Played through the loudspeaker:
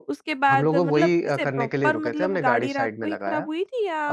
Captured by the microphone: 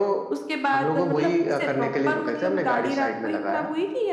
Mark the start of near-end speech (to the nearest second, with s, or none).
none